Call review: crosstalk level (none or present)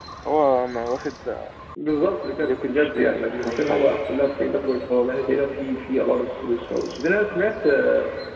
present